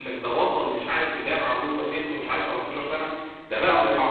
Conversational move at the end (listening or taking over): listening